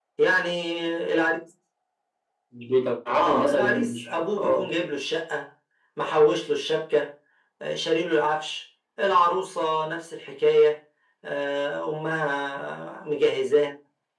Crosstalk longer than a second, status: present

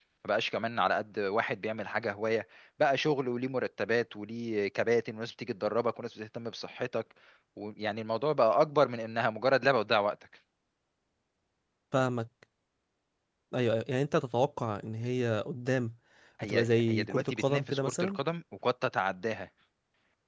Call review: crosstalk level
present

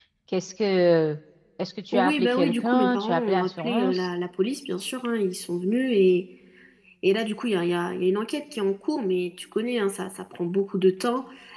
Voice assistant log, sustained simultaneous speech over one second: present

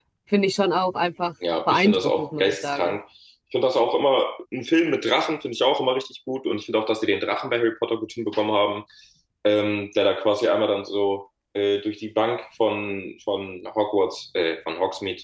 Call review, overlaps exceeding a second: present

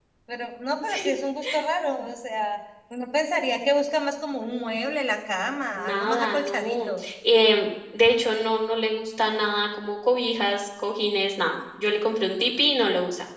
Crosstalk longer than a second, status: present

